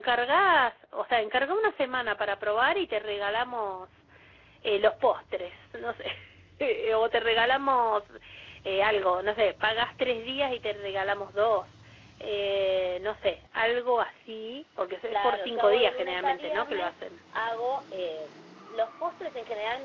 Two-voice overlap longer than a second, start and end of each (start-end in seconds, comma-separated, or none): 15.1-16.9